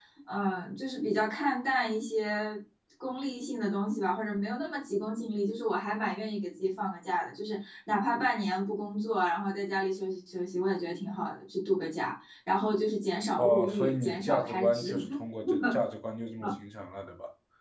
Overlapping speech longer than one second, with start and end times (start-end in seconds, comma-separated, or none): 13.4-14.9